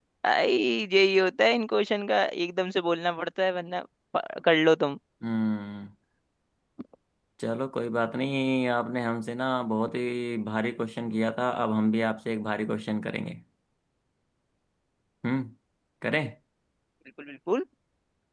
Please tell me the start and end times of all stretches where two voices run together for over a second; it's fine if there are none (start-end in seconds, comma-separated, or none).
none